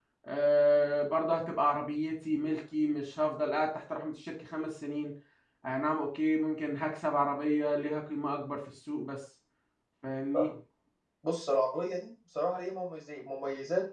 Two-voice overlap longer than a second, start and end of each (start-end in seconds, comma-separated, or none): none